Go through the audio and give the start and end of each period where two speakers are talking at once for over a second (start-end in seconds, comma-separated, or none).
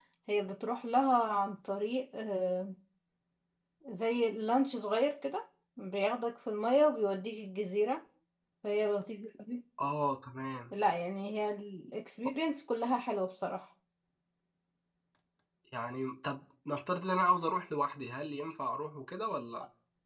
none